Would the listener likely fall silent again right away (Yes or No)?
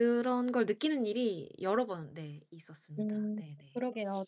No